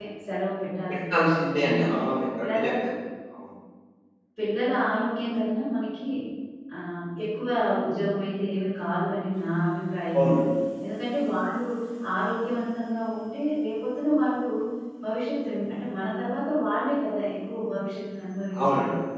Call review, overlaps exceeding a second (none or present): present